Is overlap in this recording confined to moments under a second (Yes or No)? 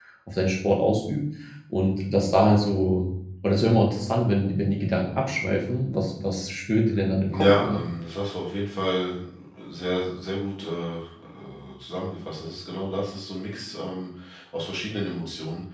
Yes